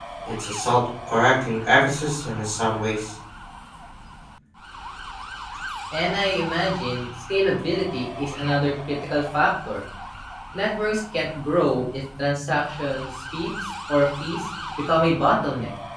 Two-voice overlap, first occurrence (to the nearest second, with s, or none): none